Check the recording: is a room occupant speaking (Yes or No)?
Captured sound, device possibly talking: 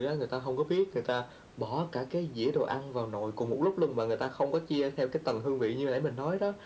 No